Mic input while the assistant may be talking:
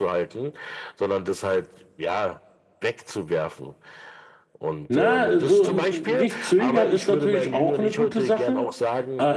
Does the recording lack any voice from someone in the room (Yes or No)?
No